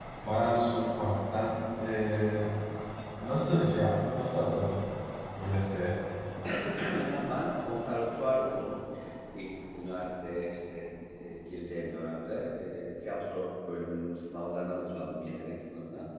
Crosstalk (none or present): none